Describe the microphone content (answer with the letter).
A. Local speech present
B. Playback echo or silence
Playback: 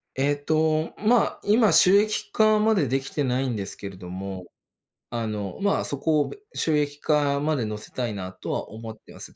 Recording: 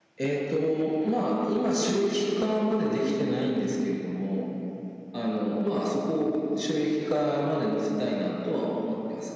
B